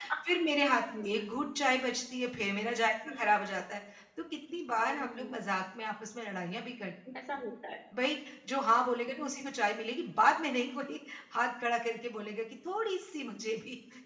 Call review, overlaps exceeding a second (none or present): none